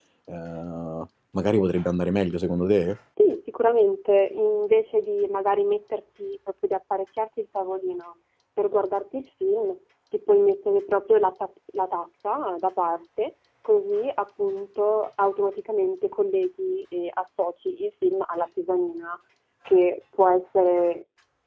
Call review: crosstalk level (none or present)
none